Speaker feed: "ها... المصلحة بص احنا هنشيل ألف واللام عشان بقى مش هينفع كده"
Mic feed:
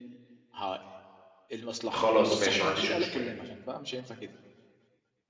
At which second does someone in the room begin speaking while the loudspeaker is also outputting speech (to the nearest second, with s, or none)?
2 s